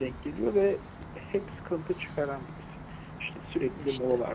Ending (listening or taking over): listening